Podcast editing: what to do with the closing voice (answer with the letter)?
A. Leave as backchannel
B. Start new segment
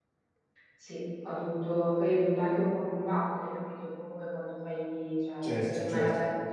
A